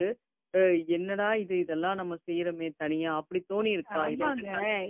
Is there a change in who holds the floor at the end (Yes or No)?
Yes